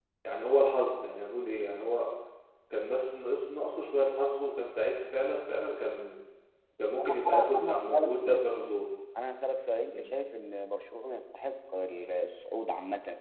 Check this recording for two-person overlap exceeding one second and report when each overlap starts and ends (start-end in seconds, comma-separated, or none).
7.0-8.4